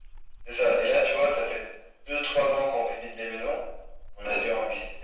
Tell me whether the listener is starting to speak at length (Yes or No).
No